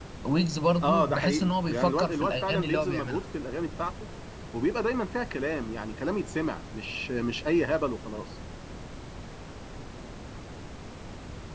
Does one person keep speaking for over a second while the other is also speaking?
Yes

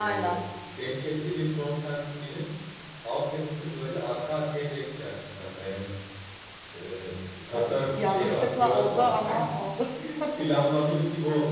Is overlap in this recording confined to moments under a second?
No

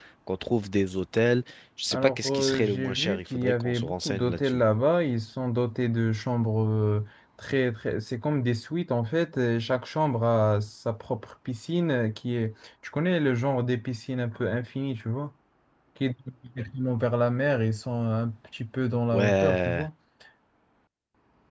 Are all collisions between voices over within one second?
No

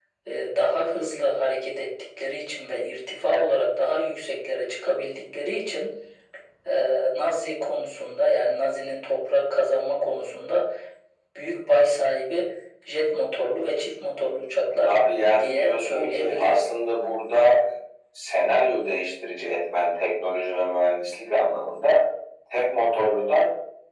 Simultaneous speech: Yes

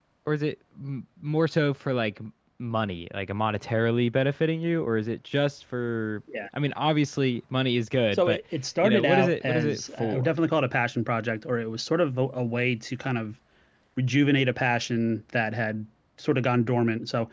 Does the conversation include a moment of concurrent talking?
Yes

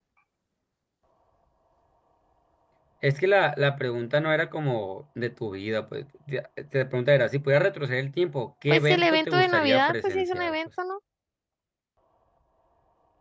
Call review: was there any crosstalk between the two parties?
Yes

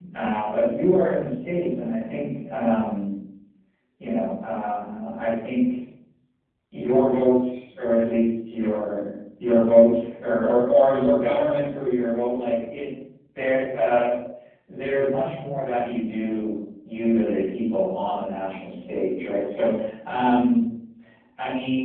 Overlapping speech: No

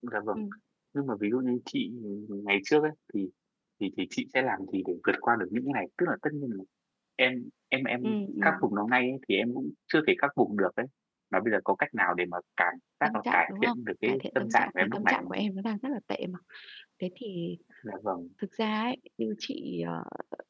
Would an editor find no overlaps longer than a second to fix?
No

